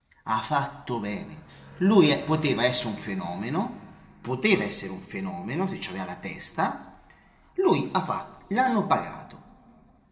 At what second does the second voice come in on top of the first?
none

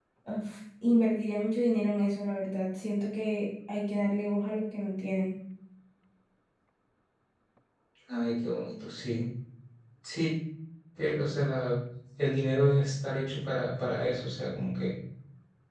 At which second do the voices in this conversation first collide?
none

